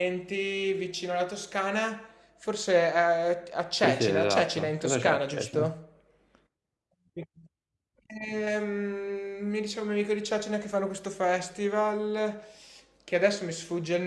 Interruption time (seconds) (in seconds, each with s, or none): 3.8 s